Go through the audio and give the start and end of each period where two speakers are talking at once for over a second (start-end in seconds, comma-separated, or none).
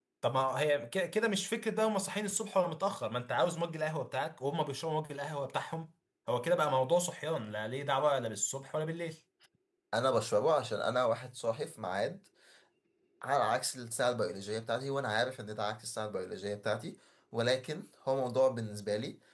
none